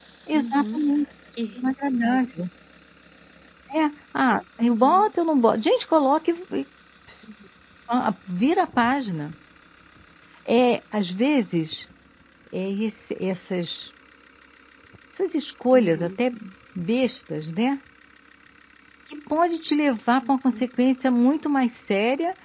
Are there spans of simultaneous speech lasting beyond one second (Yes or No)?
No